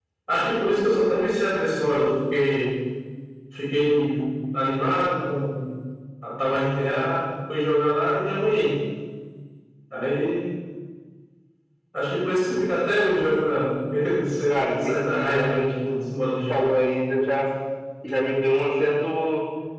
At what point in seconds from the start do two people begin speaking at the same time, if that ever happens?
14.5 s

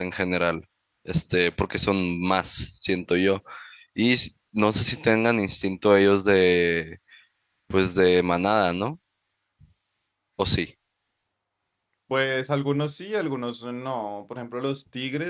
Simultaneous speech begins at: none

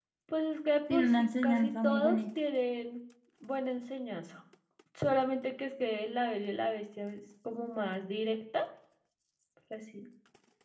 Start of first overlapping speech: 0.9 s

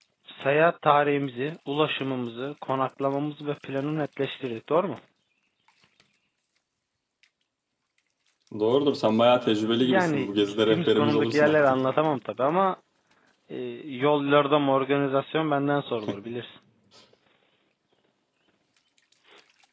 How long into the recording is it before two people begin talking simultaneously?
9.7 s

